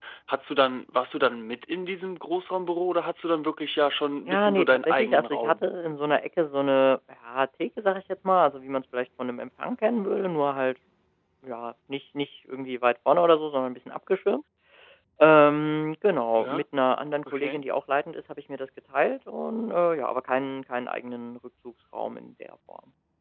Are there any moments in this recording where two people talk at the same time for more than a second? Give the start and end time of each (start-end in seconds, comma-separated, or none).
4.3-5.6